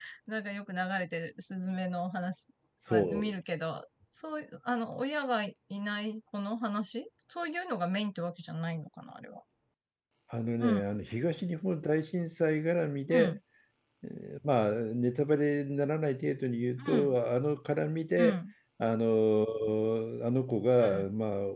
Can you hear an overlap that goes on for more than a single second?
No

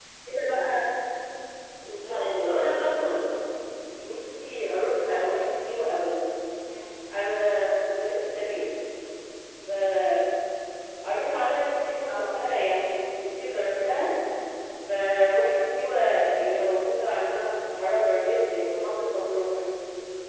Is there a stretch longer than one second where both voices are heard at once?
Yes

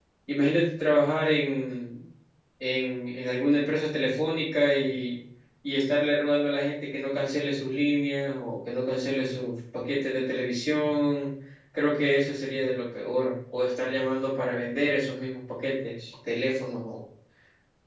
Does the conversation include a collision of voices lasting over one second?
No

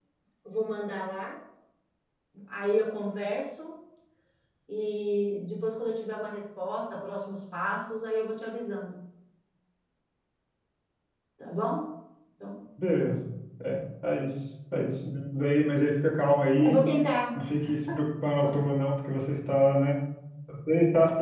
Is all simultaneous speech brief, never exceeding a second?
Yes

